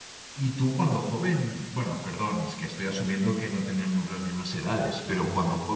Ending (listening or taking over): listening